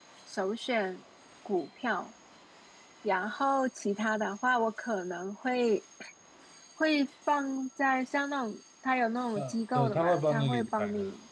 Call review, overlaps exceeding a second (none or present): present